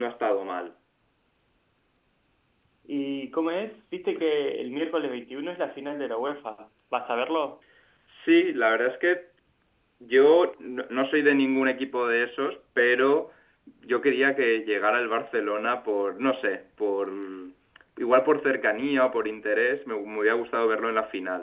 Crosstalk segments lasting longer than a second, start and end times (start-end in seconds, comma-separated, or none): none